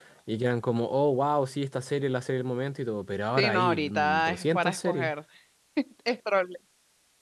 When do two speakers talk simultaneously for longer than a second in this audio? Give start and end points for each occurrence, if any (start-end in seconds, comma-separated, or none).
3.4-5.1